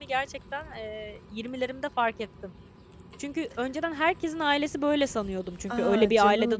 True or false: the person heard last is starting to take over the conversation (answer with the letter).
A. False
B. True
B